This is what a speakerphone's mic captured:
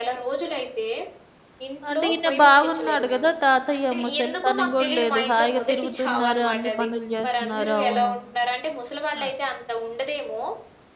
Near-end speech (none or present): present